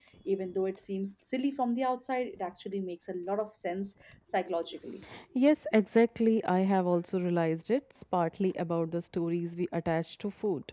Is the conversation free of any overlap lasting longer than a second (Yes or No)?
Yes